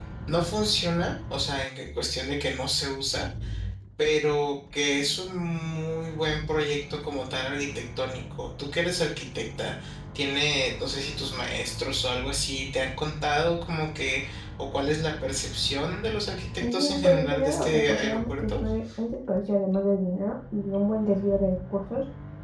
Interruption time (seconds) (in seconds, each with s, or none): 16.6 s